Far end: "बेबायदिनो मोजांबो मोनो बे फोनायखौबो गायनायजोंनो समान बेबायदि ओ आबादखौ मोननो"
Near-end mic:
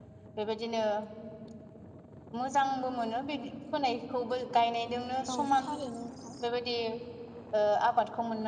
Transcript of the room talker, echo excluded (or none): औ थारैनो नोंथां